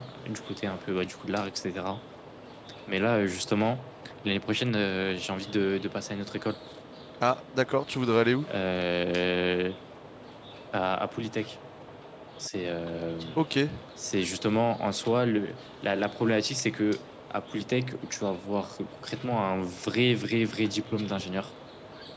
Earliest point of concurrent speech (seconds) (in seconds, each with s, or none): none